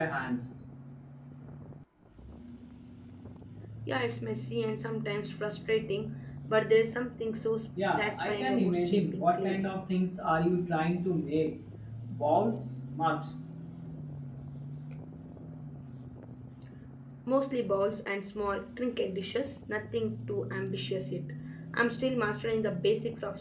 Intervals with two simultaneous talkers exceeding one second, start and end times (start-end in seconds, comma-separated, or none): 7.9-9.6